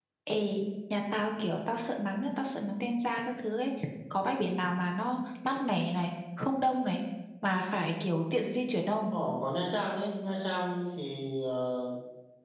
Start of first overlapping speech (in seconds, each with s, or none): none